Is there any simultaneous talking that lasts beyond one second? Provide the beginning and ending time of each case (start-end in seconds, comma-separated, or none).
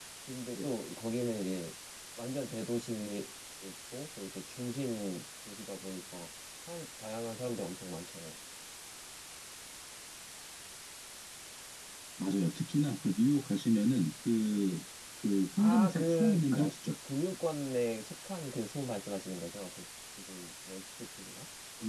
15.6-16.9